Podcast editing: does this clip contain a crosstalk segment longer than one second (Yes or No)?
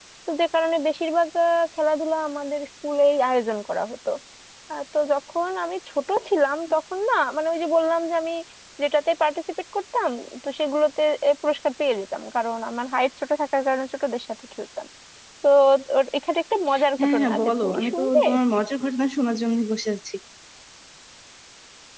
Yes